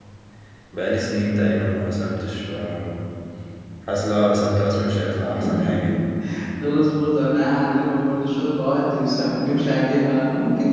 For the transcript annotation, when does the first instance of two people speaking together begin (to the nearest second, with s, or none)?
none